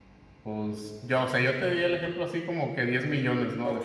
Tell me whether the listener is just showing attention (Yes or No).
No